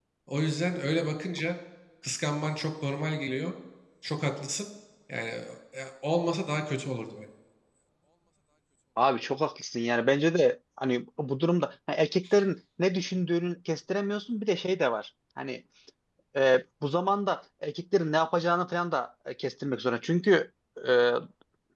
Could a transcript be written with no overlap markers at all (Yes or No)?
Yes